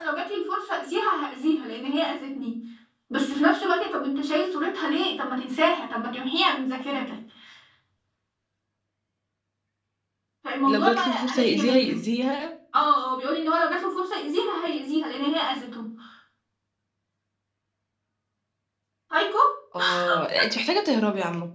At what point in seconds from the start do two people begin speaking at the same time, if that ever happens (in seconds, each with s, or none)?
10.7 s